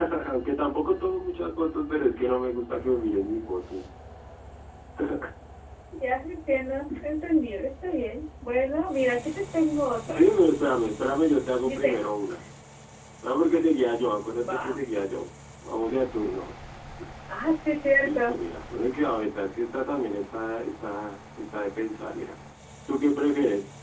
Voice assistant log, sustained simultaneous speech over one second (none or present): none